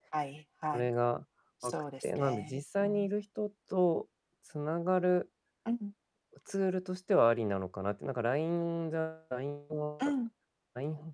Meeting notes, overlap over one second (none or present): present